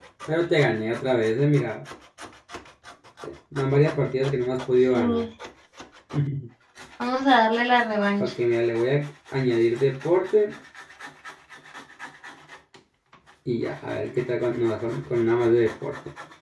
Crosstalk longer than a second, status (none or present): none